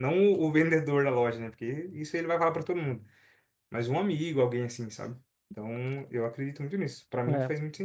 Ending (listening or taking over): taking over